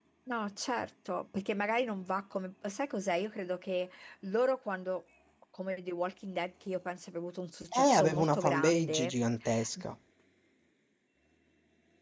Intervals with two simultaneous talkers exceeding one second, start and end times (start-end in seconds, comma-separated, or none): 7.8-9.1